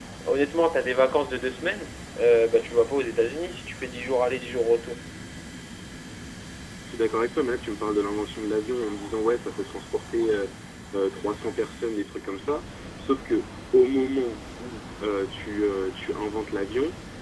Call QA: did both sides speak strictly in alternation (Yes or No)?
Yes